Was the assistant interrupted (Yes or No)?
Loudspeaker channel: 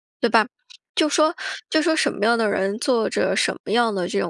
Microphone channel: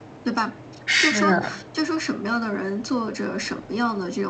Yes